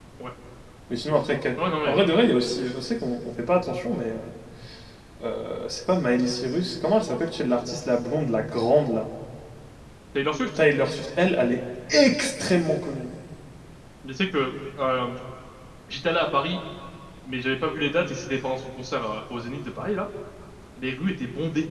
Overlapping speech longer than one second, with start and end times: none

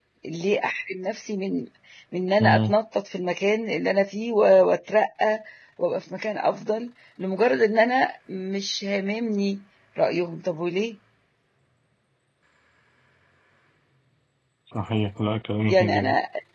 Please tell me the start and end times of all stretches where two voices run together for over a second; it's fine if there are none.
none

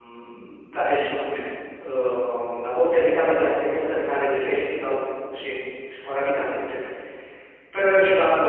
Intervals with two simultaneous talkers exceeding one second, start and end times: none

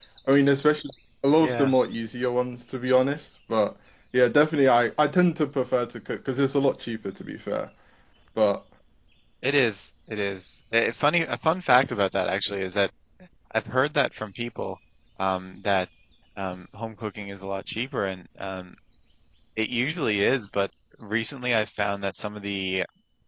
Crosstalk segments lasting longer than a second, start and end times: none

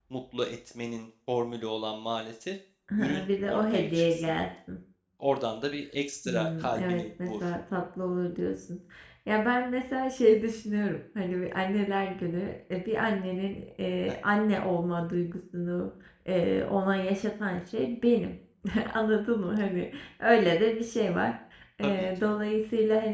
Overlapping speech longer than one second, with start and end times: 3.0-4.3, 6.2-7.5

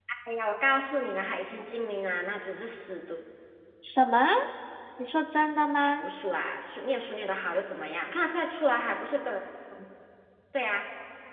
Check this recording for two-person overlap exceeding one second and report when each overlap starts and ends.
none

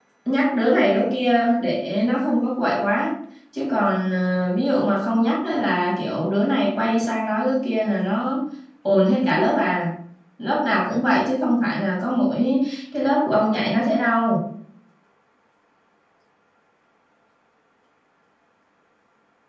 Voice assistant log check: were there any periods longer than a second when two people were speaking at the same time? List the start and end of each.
none

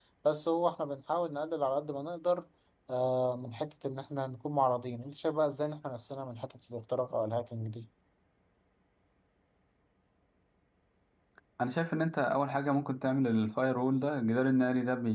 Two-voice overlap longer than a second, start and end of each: none

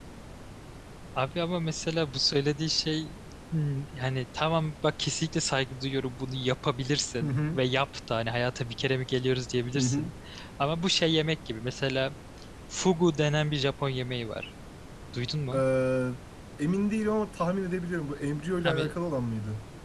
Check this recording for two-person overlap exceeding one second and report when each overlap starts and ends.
none

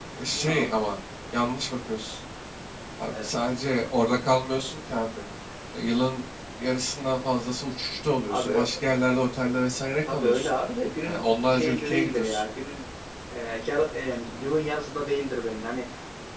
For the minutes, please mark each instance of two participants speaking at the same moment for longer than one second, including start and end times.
11.1-12.4

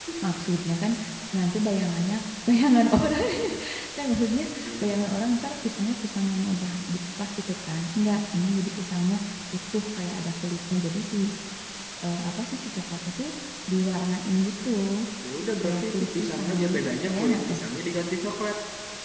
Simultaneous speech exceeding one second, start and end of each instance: 15.6-17.6

